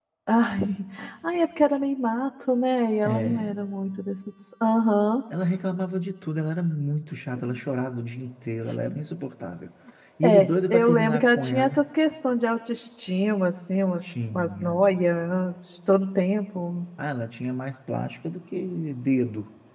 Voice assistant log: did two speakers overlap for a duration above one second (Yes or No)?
Yes